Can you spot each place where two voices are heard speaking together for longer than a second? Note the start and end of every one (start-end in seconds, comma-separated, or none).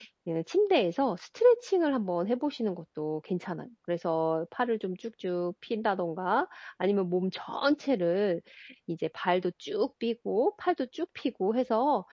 none